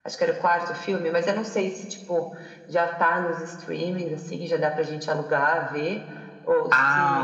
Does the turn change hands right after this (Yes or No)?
Yes